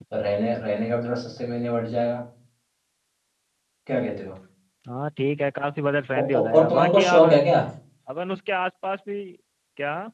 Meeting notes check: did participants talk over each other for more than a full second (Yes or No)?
Yes